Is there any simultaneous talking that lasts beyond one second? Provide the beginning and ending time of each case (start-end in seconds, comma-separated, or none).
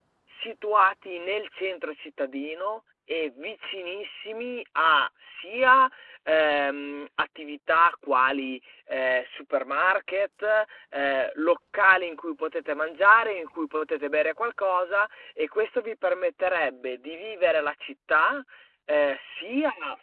none